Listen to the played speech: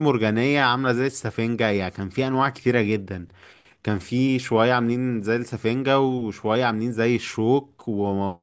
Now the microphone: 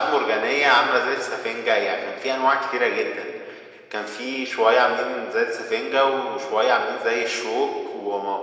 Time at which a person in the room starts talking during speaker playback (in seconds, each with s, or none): none